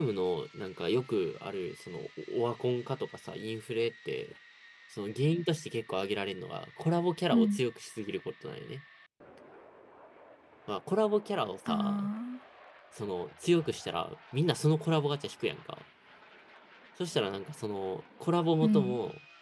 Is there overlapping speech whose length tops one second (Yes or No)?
No